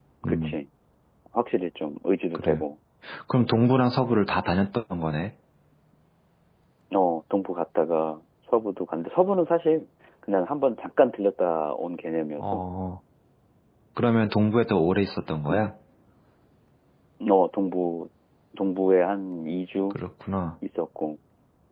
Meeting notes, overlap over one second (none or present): none